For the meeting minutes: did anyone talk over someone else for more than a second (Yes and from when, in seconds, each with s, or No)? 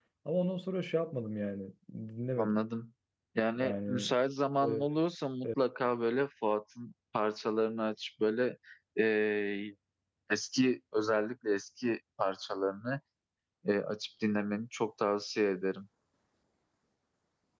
No